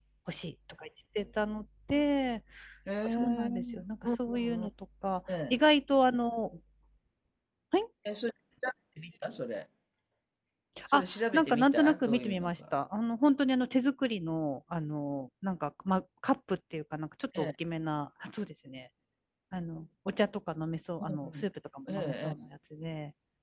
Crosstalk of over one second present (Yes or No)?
Yes